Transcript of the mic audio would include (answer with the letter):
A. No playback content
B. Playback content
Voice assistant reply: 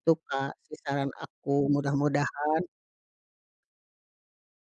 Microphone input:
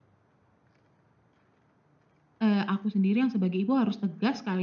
A